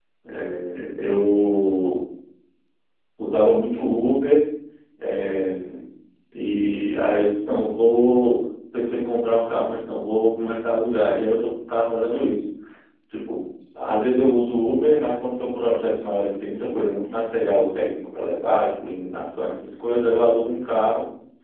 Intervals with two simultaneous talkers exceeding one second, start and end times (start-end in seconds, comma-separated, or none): none